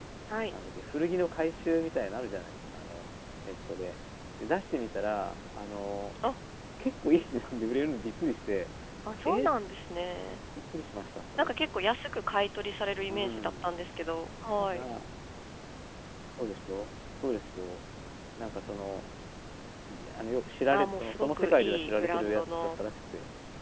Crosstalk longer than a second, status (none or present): present